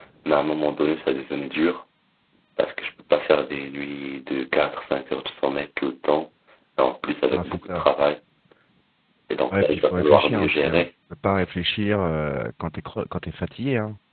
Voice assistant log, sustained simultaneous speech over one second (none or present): present